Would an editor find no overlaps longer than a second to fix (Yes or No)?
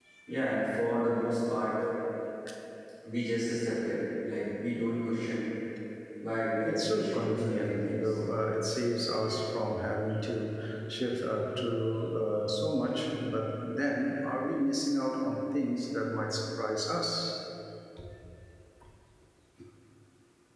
No